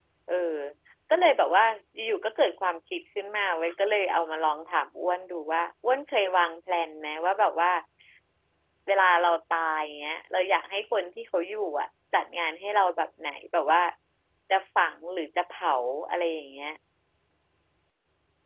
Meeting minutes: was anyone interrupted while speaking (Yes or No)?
No